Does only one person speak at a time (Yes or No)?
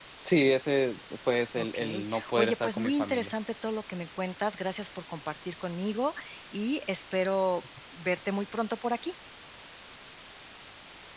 No